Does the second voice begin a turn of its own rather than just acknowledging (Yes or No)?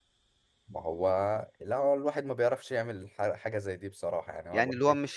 Yes